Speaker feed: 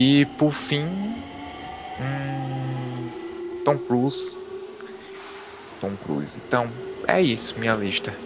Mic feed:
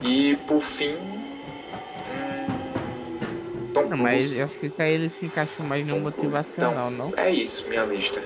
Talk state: both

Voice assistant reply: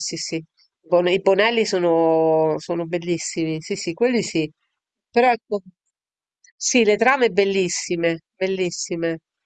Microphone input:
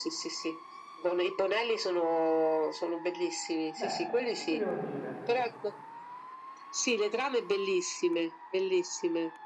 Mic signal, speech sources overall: both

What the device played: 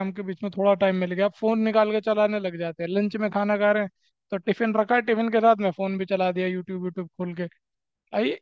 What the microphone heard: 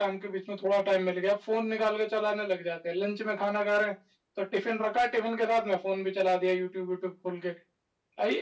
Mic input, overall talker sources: echo only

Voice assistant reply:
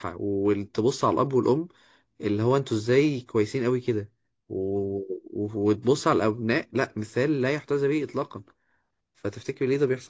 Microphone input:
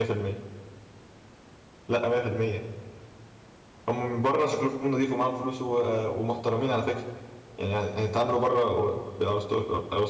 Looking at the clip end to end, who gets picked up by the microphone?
user only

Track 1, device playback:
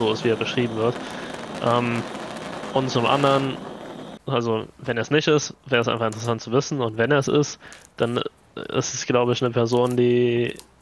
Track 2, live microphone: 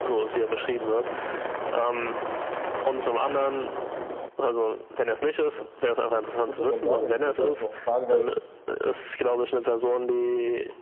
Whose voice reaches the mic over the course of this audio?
both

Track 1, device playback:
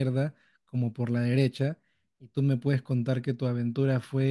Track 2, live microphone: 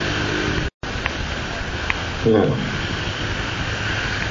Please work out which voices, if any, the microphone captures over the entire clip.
user only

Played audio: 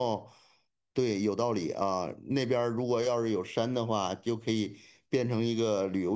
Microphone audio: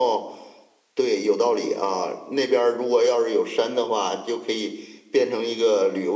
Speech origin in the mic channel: echo only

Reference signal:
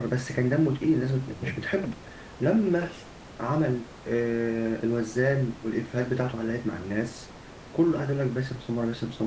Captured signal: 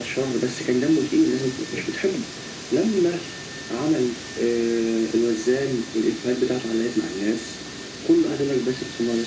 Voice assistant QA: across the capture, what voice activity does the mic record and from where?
echo only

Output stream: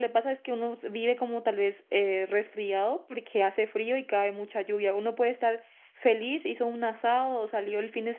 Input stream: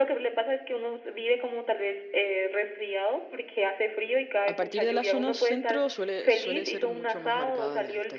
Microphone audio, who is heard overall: both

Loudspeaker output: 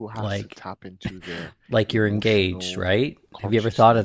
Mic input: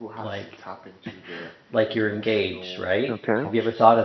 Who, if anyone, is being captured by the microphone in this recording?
both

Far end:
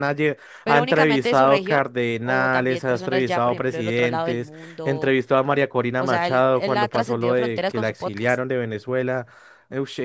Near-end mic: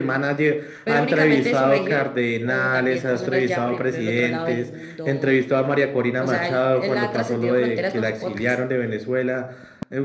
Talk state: echo only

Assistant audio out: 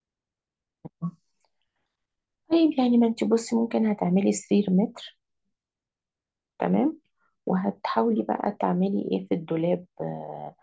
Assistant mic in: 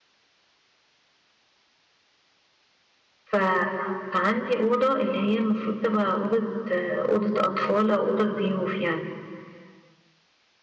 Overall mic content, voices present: user only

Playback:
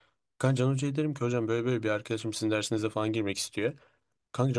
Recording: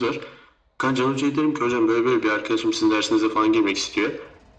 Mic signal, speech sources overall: echo only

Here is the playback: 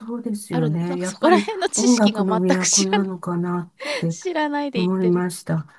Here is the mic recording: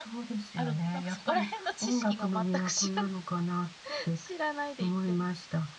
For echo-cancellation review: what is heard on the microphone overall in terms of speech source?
echo only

